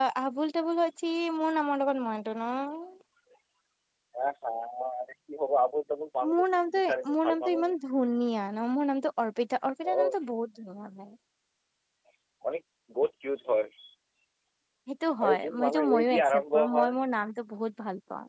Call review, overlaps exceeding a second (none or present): present